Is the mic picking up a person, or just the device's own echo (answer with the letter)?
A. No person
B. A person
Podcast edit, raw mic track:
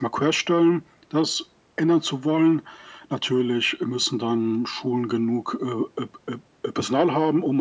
A